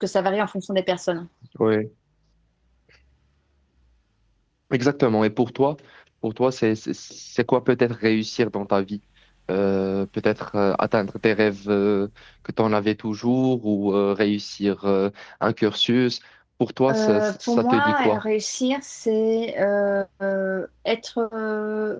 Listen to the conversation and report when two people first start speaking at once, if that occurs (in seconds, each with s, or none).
16.9 s